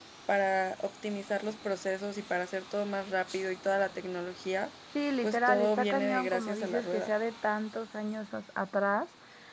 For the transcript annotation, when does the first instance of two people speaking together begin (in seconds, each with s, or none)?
5.2 s